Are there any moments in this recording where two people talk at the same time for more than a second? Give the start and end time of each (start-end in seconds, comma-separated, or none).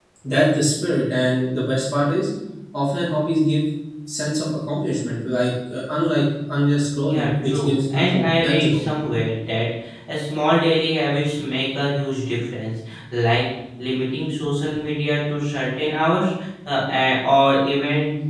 7.0-8.8